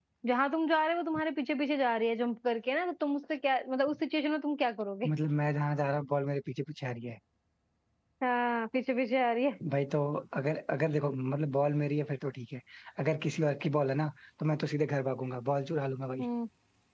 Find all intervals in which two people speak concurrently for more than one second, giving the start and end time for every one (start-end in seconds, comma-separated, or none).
none